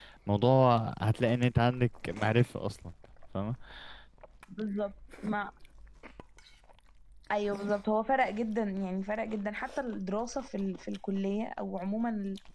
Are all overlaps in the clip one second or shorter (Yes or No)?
Yes